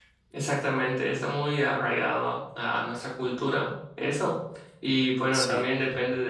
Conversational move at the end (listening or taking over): listening